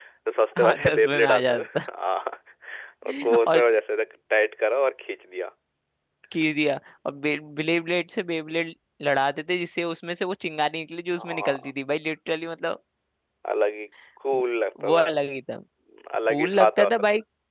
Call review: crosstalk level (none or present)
present